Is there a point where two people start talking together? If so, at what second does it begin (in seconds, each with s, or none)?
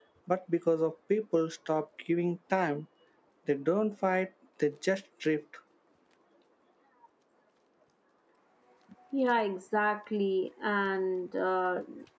none